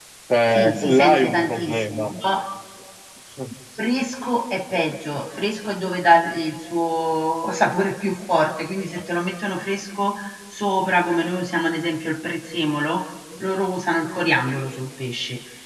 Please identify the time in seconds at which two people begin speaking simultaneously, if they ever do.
0.5 s

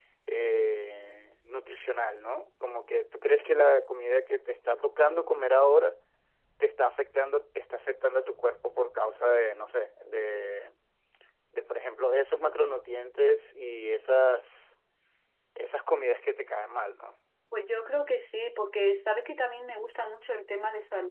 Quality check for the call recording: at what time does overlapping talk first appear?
none

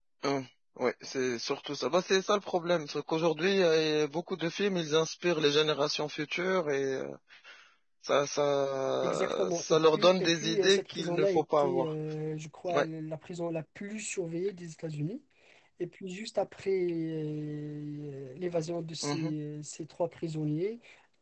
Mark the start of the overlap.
9.0 s

